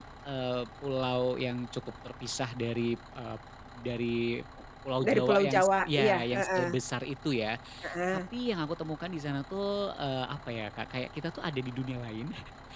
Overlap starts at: 5.0 s

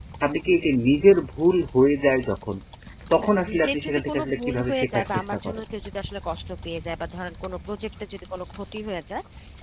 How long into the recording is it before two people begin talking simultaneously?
3.1 s

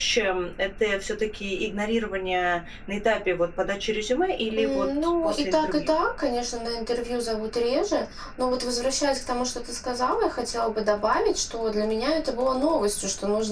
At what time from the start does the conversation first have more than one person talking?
4.5 s

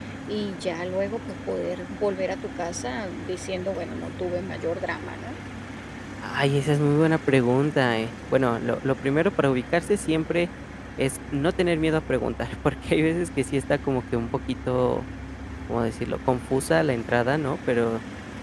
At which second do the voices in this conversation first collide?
none

